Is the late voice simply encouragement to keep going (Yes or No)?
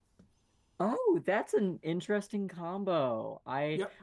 Yes